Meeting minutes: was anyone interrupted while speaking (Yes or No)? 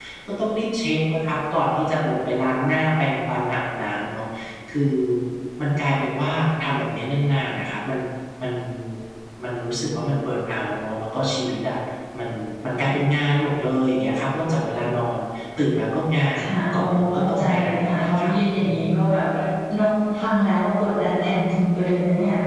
Yes